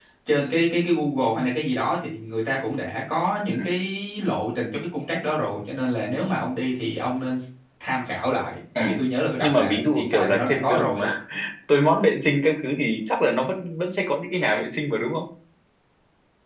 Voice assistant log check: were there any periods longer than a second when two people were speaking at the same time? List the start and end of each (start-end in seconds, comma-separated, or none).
9.4-11.1